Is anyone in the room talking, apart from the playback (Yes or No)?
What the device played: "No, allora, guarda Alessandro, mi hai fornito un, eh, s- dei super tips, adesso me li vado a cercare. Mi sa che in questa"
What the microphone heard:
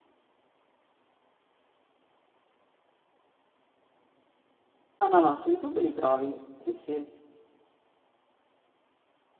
Yes